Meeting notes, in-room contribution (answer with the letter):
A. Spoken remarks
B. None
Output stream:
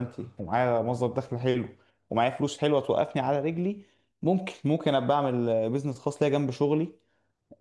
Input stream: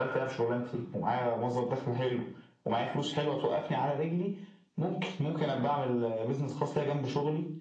B